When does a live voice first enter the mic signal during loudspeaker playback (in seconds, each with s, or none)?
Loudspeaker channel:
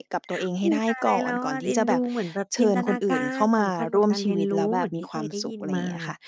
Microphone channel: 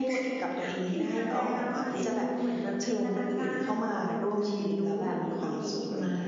none